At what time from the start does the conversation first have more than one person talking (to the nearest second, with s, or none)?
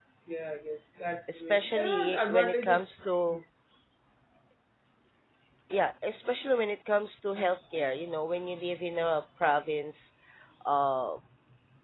1 s